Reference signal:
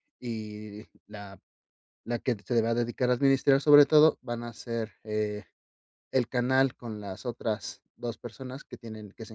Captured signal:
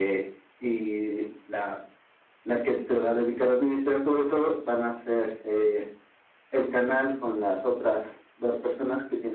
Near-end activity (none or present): none